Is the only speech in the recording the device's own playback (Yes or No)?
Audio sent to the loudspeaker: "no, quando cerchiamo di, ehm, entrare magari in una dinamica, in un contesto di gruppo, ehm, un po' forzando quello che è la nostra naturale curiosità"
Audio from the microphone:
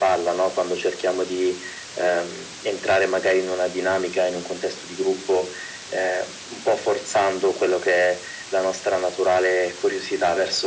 Yes